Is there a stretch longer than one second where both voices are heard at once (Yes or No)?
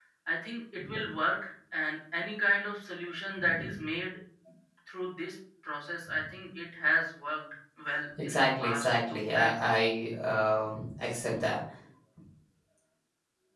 Yes